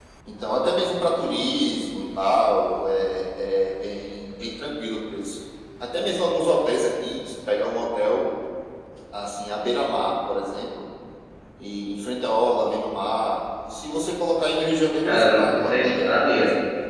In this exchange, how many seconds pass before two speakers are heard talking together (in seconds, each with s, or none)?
15.0 s